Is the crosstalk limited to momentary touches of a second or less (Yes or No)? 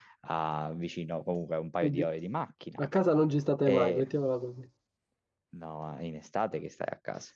Yes